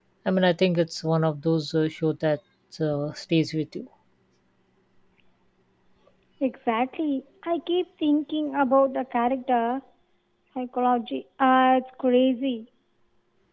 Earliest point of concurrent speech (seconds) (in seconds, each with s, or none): none